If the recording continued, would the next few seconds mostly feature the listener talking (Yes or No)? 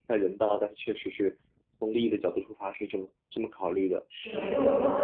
Yes